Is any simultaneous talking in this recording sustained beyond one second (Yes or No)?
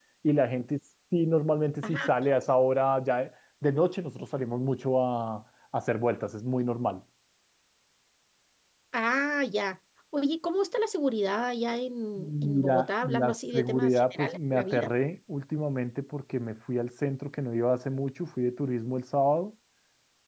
Yes